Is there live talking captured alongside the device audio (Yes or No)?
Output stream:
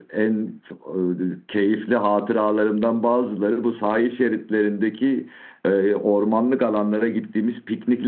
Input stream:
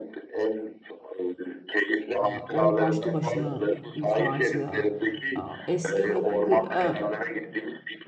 Yes